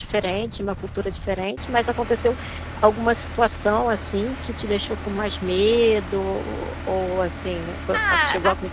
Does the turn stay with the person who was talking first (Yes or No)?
No